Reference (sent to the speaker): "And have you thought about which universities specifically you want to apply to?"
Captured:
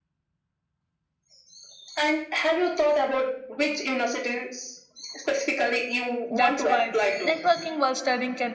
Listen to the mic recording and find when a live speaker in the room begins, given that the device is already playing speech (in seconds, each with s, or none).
6.3 s